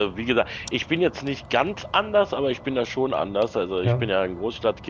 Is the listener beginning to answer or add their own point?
No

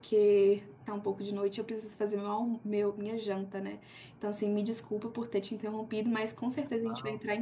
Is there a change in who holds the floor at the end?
No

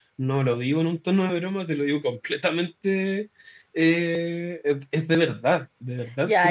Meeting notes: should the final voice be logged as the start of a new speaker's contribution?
Yes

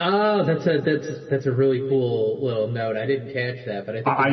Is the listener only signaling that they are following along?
No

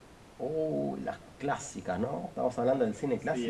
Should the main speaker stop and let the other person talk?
Yes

